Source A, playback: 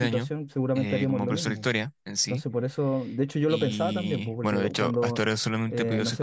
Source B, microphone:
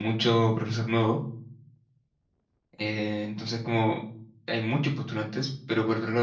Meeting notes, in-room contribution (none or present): present